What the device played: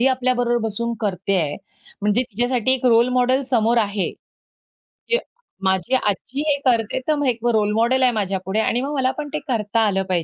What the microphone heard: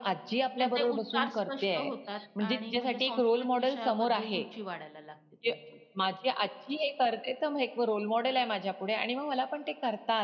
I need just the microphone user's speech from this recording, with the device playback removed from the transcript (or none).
त्यांचे उच्चार स्पष्ट होतात आणि म्हणजे संस्कृत विषयाबद्दल रुची वाढायला लागते त्यांची.